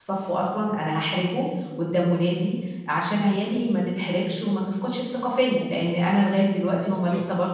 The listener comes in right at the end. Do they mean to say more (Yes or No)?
No